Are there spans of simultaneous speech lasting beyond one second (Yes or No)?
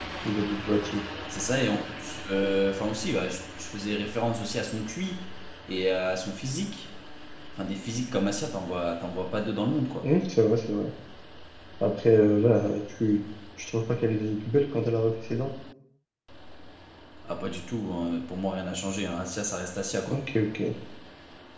No